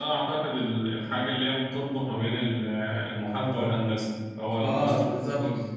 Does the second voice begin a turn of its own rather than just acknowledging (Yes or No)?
Yes